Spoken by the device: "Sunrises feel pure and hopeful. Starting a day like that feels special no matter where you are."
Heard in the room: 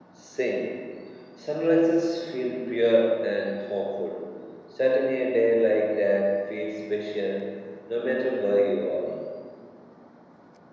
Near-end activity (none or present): none